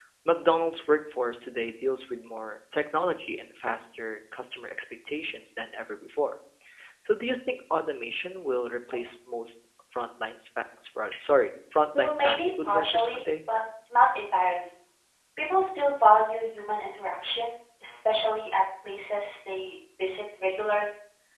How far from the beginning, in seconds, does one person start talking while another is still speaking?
12 s

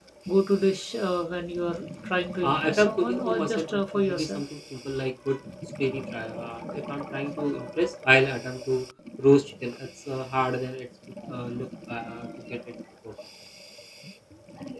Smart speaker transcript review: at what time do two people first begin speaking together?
2 s

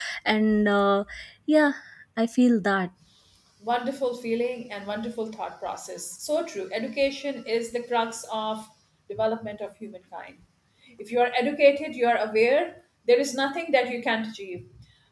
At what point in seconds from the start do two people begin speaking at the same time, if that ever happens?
none

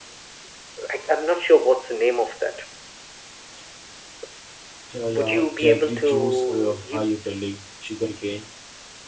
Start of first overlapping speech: 5 s

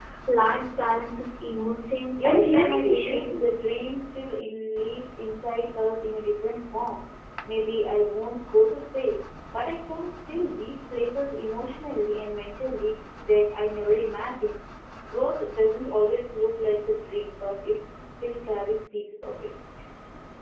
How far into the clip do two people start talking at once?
2 s

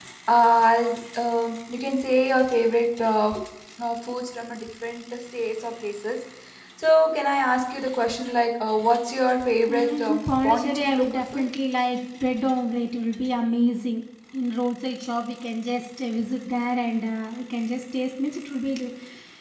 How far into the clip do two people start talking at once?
10 s

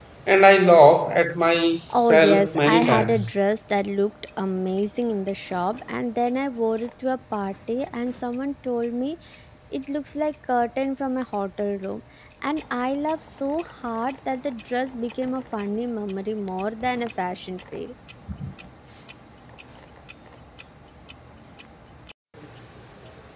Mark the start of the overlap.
2 s

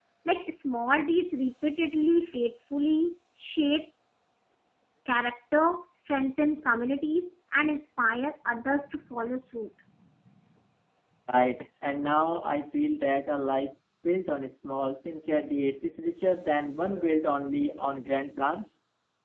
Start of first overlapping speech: none

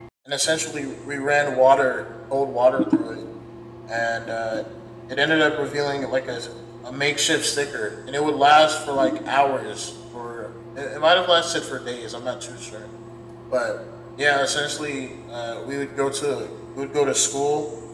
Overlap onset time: none

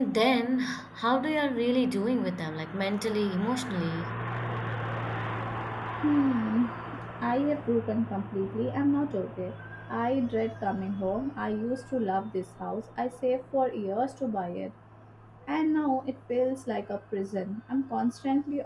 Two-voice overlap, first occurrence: none

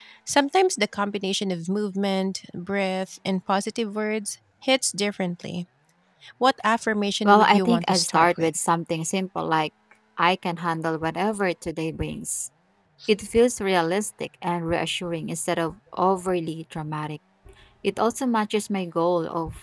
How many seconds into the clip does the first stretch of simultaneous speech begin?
7 s

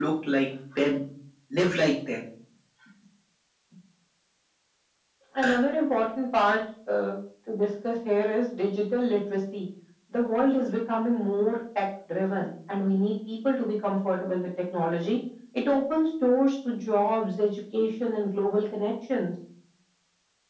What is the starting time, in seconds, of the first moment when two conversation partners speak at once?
none

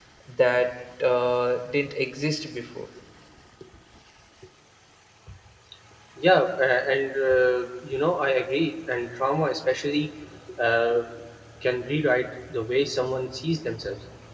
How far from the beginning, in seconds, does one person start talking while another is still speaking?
none

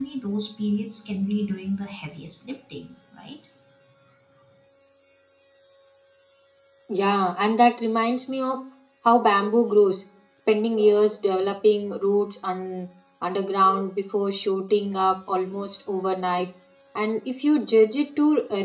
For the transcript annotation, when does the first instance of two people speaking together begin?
none

